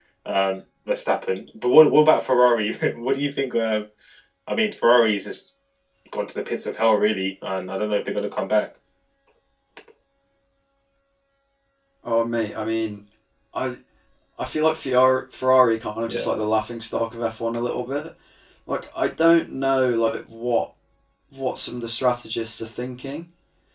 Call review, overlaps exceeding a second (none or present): none